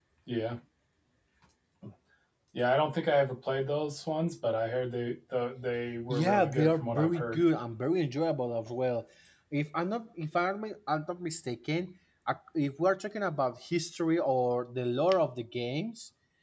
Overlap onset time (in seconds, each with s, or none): 6.1 s